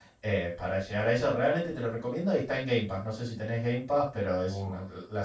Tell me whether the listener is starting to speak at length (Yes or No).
Yes